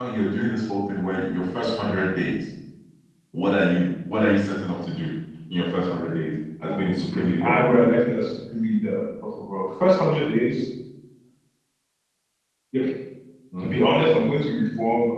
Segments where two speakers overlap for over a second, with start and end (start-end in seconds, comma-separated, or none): 6.7-7.9